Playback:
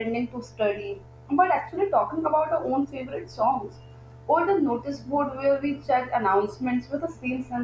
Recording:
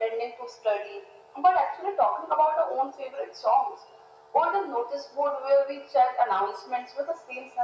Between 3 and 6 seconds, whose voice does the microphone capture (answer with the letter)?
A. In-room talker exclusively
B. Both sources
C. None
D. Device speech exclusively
D